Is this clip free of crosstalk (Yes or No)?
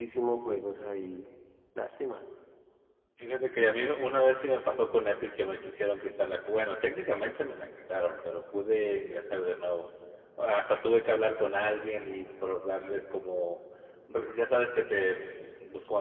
Yes